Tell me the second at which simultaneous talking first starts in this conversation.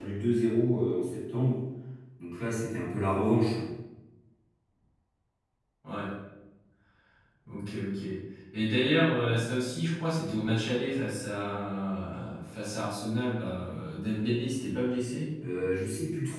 none

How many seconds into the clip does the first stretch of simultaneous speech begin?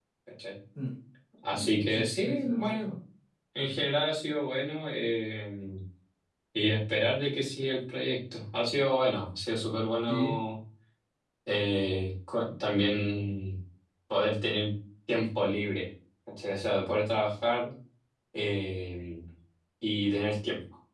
1.5 s

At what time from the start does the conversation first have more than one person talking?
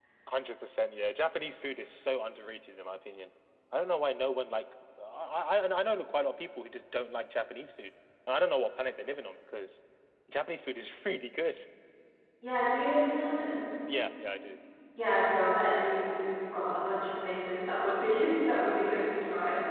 none

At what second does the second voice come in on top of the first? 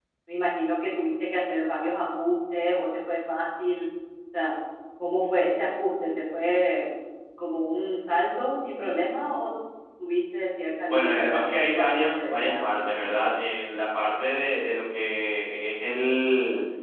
10.9 s

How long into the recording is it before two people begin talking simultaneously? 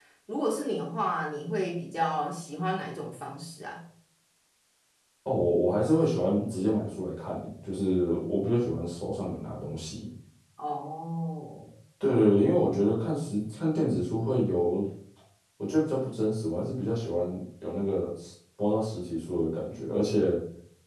none

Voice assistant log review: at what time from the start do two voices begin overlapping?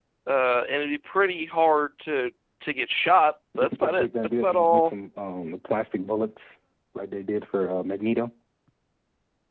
3.5 s

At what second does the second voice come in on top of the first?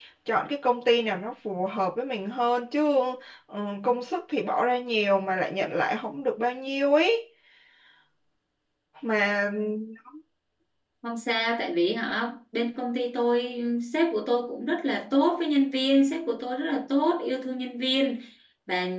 none

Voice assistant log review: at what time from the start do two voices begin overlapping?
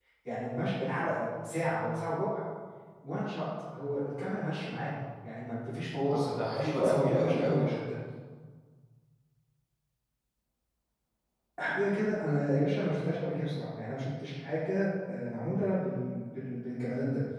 6.1 s

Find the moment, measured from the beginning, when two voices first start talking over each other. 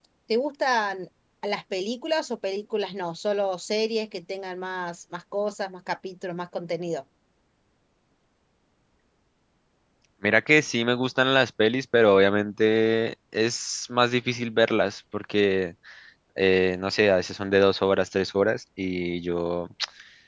none

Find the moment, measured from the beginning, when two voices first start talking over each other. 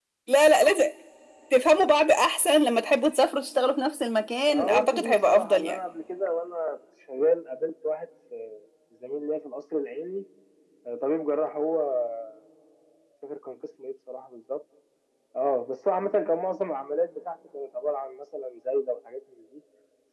4.5 s

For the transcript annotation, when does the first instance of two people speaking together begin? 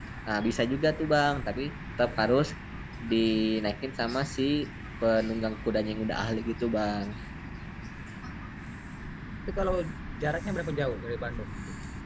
none

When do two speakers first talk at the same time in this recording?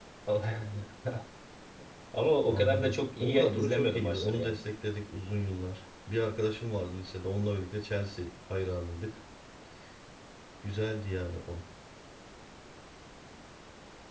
2.5 s

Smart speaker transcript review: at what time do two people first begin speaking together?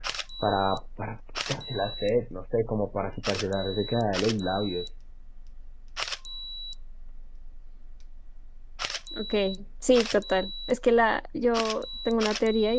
none

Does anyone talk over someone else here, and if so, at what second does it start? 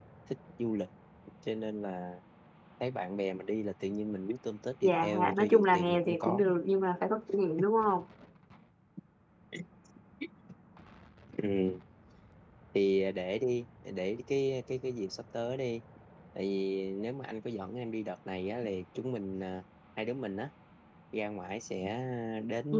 4.8 s

